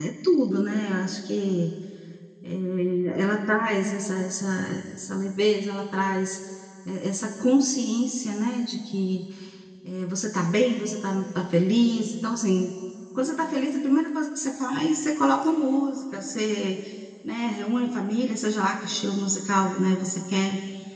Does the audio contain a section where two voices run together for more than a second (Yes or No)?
No